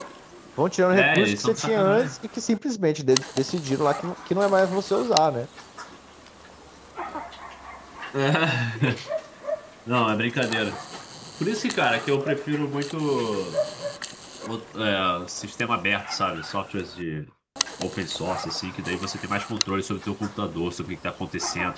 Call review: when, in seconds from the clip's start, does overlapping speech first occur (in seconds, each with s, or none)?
0.9 s